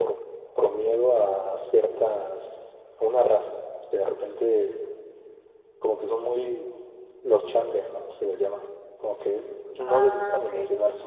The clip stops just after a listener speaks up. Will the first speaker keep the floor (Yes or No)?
Yes